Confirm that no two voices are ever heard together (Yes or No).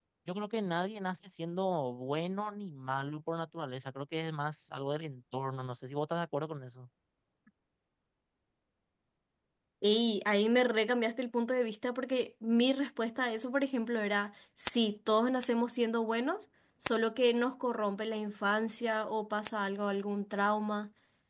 Yes